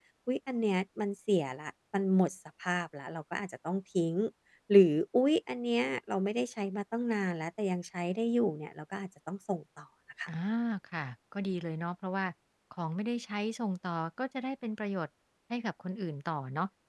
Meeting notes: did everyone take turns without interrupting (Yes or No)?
Yes